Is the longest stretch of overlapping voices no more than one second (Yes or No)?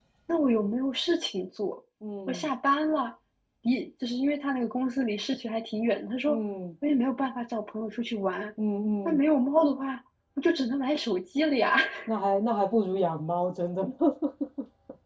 Yes